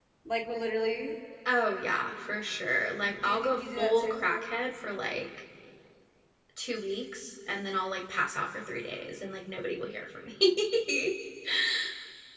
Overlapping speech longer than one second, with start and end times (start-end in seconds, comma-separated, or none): 3.0-4.2